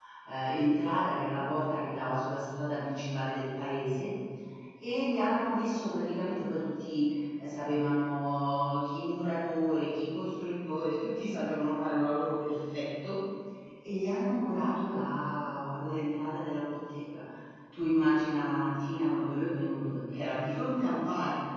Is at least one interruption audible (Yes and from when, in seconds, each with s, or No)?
No